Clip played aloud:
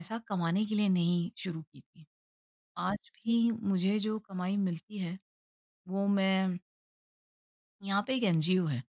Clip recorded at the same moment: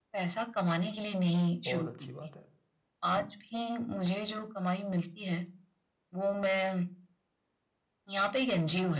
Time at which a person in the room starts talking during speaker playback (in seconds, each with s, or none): 1.7 s